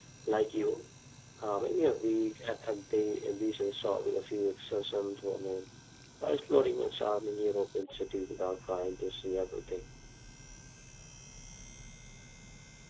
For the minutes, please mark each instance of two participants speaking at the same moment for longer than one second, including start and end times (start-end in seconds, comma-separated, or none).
none